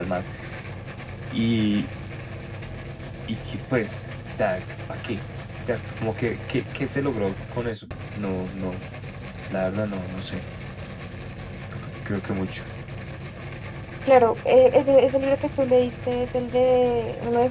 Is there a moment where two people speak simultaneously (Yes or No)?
No